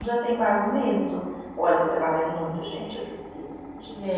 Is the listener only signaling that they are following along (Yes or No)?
No